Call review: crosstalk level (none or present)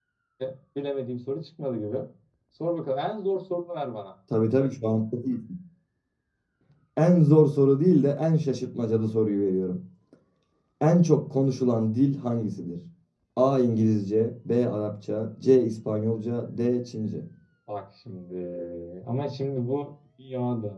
none